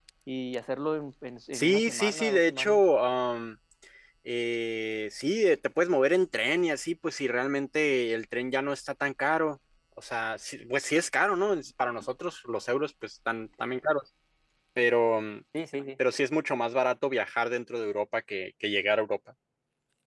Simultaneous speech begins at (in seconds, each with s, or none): 1.5 s